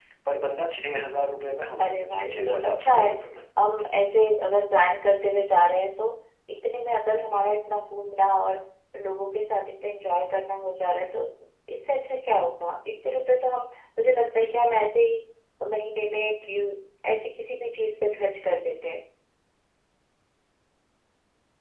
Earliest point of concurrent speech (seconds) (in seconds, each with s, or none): 1.8 s